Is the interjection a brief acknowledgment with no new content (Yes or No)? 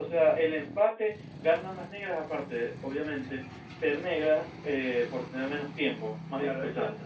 No